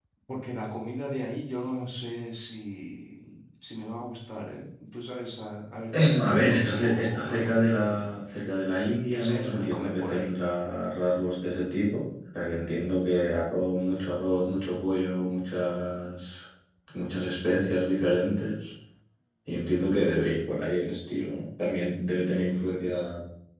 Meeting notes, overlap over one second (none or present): present